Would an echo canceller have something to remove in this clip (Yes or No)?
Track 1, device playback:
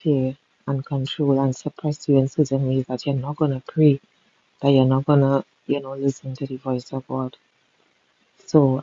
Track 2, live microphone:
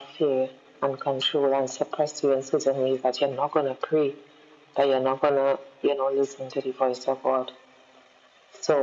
Yes